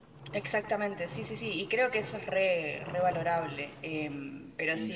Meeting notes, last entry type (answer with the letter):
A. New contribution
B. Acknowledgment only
B